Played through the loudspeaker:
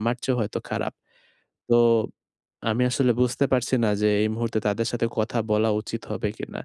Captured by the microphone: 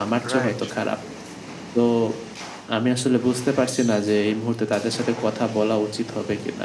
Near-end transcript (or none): রাইট